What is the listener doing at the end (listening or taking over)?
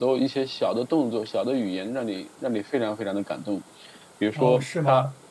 taking over